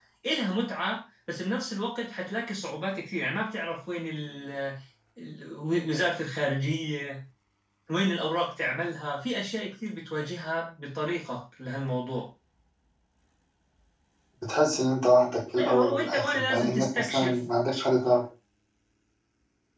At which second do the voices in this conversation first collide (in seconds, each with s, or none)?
15.6 s